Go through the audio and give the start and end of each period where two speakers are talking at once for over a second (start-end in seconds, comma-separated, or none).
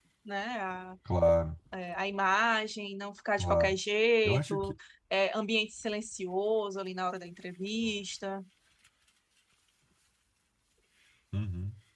none